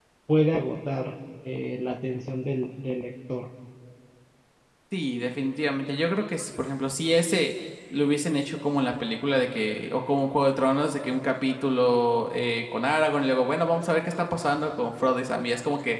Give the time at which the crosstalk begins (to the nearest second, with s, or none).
none